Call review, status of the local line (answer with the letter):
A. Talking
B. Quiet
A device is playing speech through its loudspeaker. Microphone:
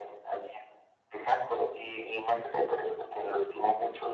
B